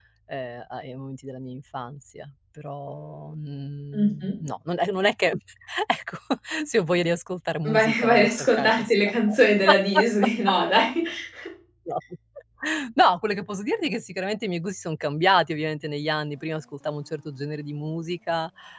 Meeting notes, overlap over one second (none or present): present